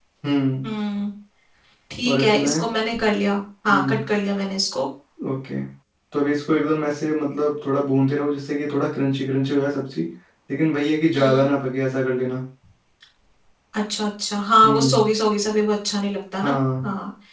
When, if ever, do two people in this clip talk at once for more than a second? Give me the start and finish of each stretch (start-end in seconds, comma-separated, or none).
none